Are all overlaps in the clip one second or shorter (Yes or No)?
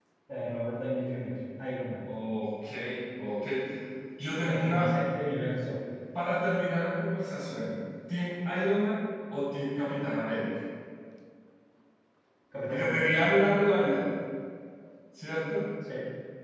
Yes